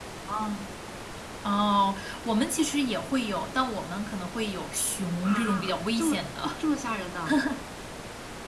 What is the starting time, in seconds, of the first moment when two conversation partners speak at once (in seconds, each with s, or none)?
5.2 s